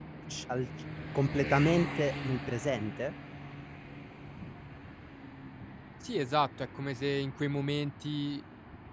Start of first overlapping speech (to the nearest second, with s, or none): none